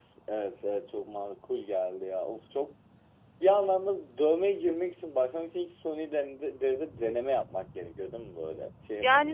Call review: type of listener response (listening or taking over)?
taking over